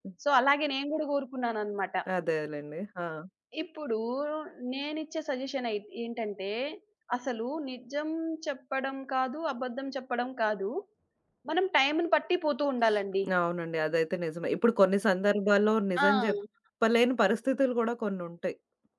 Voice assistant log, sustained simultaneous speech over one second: none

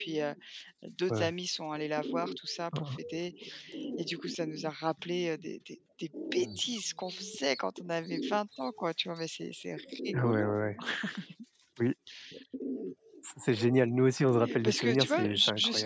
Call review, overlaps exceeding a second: present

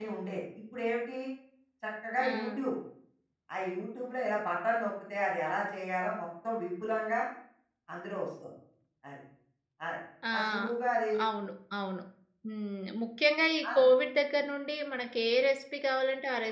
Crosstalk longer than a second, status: none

